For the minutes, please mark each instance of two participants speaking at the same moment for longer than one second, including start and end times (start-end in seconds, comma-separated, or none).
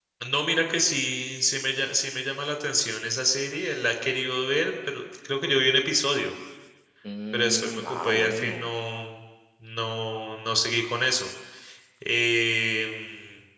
7.3-8.7